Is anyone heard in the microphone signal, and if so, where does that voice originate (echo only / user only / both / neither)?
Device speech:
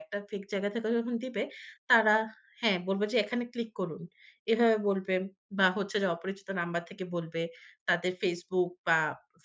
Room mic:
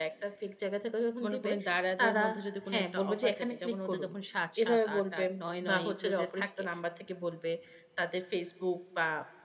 both